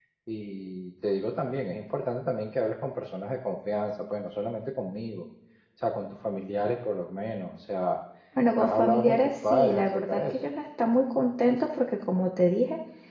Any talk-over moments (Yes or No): Yes